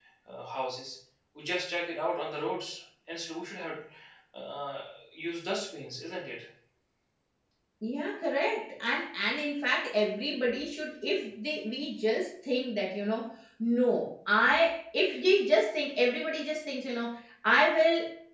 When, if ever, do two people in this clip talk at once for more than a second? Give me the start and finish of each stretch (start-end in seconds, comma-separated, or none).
none